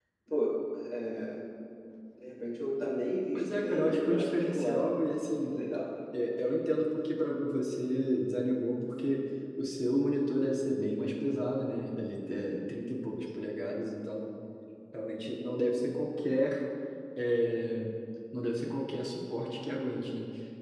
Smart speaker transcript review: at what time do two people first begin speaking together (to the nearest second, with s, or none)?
3 s